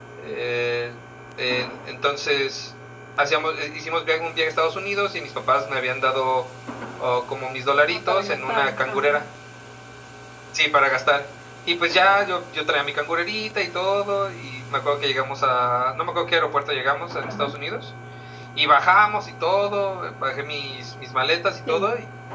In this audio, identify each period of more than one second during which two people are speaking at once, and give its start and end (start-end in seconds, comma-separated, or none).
7.8-9.2